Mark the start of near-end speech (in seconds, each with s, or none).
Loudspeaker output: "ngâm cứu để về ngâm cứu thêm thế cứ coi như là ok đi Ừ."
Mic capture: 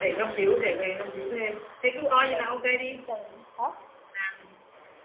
2.0 s